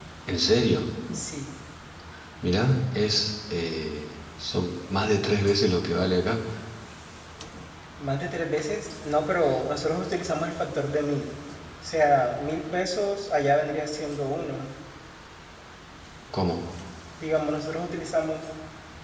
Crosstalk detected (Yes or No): No